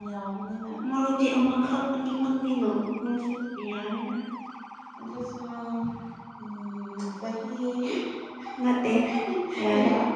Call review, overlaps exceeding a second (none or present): none